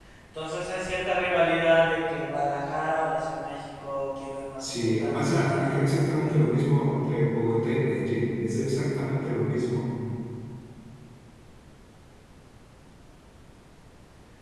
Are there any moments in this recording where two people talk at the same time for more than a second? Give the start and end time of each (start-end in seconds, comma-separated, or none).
4.6-6.4